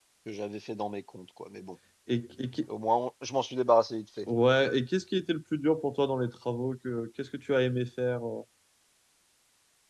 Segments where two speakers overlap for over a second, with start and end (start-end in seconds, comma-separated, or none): none